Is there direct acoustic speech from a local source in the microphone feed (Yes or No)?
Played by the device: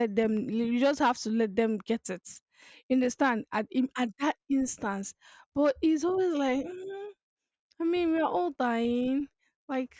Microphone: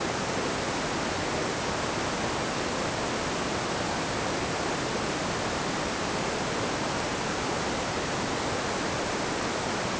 No